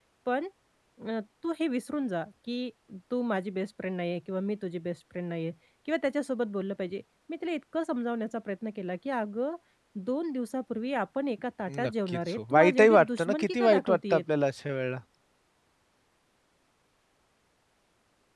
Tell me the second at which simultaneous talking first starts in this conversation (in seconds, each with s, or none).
11.7 s